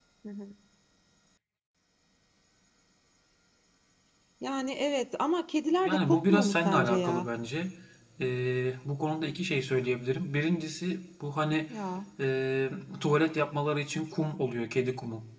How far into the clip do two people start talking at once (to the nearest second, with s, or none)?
6 s